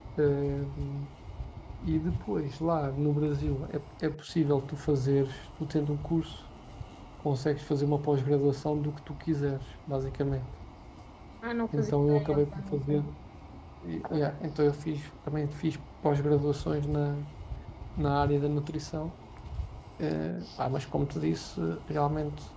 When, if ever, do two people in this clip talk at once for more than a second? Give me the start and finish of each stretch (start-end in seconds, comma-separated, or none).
11.7-13.0